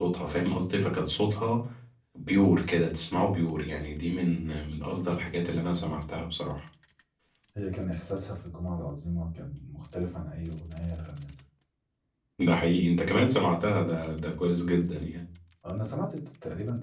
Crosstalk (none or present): none